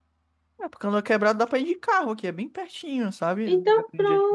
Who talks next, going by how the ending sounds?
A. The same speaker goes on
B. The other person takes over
B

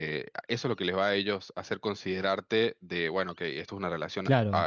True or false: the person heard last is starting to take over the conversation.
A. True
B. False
A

